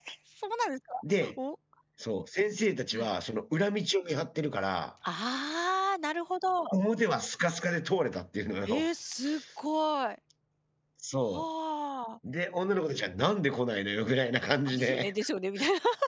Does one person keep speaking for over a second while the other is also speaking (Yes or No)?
No